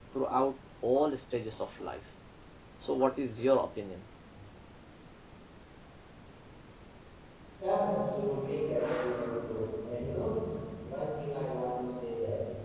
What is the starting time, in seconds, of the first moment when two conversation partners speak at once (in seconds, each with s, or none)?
none